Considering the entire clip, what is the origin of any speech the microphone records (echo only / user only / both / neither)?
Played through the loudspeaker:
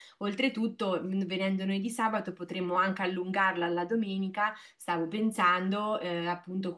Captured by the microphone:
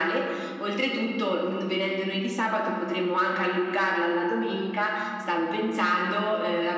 echo only